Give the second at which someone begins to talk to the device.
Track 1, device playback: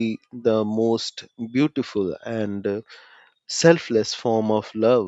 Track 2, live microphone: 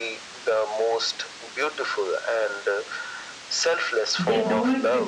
4.2 s

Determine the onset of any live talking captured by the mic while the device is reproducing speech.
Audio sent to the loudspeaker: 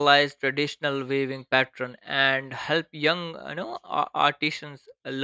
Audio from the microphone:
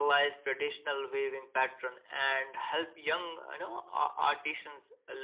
none

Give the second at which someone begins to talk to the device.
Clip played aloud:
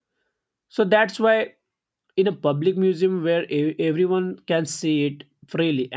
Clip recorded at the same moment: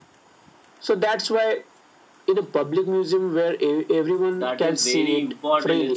4.4 s

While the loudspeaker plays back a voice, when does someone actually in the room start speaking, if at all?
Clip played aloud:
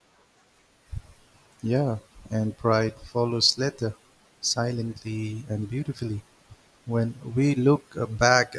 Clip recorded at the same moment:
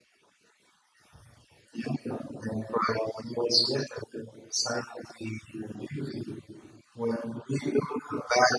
none

